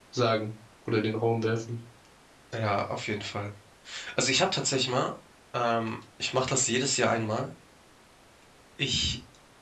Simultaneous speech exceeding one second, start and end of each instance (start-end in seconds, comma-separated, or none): none